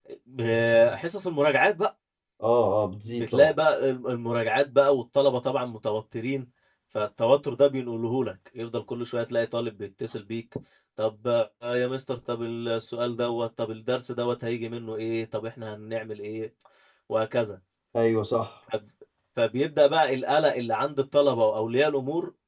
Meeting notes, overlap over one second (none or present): none